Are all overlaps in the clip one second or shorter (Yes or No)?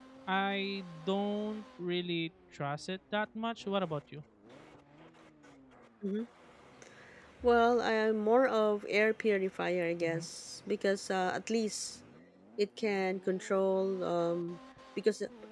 Yes